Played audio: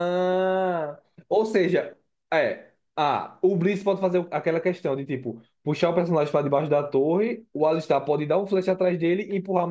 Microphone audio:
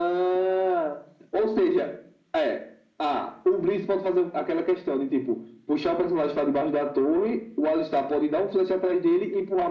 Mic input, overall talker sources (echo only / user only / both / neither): echo only